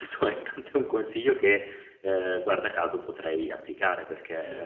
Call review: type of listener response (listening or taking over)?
listening